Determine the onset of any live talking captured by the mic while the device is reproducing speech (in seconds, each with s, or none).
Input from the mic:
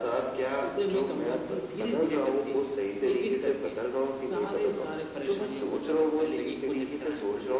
none